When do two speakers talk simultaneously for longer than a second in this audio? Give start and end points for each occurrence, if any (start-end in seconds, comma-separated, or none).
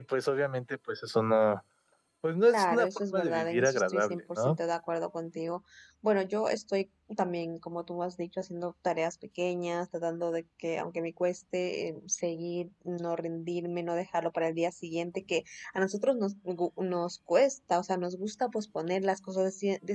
2.4-4.6